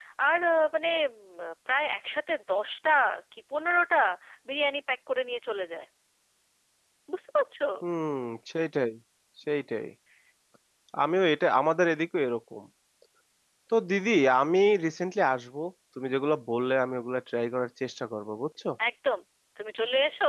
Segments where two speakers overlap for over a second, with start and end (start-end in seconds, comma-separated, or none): none